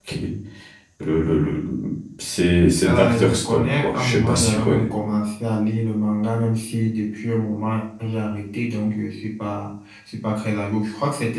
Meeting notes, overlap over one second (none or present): present